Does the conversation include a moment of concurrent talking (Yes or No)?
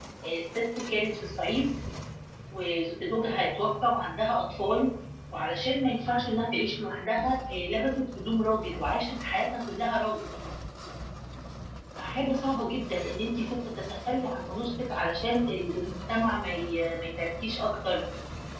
No